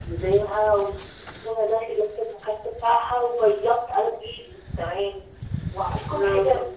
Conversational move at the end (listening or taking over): listening